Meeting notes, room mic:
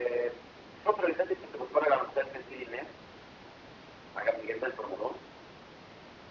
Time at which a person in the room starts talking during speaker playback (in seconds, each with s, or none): none